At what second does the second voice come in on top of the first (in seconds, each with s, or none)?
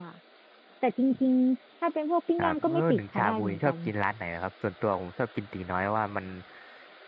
2.4 s